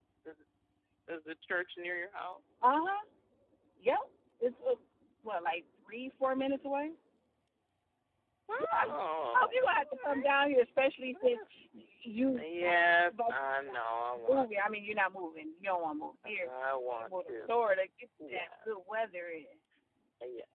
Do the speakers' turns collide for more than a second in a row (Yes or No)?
Yes